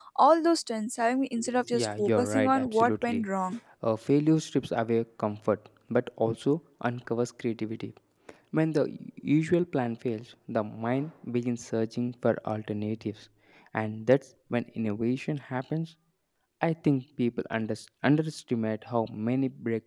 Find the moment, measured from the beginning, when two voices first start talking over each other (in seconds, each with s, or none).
1.7 s